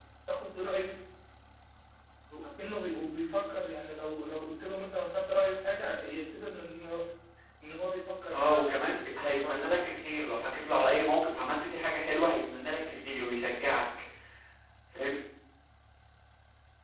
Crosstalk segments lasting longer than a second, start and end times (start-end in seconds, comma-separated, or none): 8.3-9.7